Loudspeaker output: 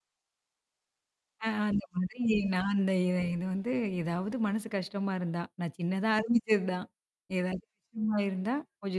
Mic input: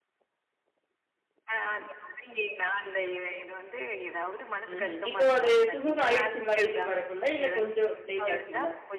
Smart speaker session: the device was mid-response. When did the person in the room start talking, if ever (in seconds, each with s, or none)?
4.7 s